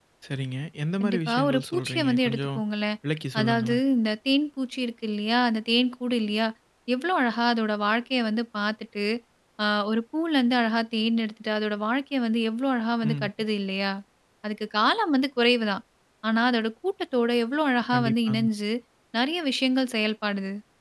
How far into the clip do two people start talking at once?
1.0 s

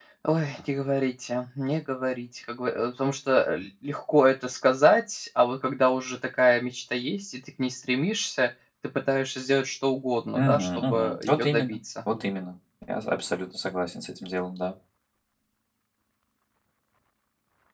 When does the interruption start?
10.4 s

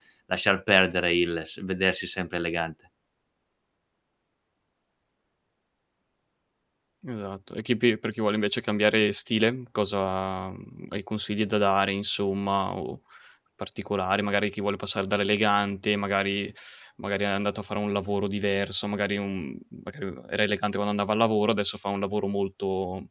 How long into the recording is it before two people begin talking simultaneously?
none

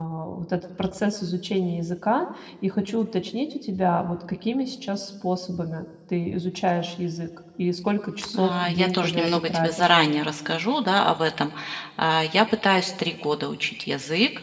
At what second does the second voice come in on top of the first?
8.3 s

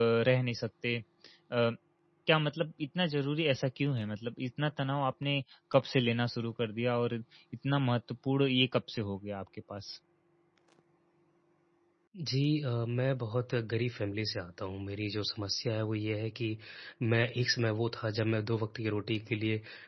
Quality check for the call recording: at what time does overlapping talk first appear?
none

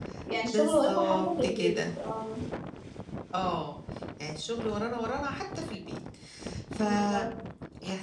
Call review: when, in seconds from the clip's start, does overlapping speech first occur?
0.5 s

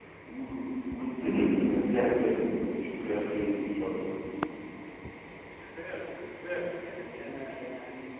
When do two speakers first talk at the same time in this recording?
none

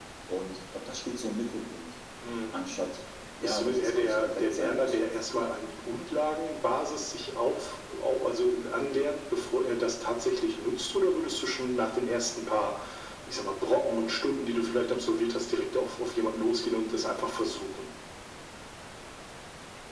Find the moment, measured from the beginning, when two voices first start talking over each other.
3.4 s

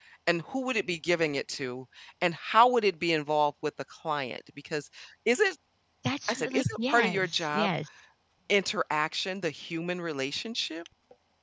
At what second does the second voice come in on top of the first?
6.3 s

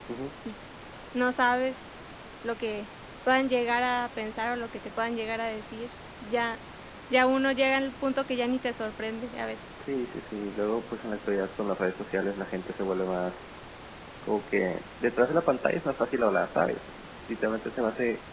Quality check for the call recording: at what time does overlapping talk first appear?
none

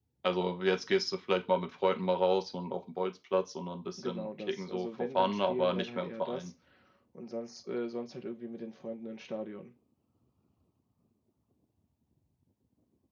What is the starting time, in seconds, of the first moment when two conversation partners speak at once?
4.0 s

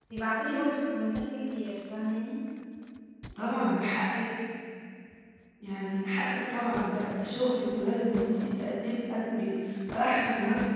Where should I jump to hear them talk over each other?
none

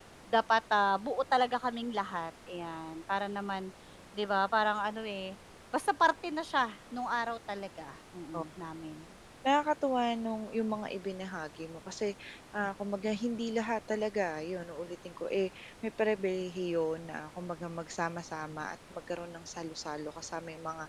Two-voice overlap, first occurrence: none

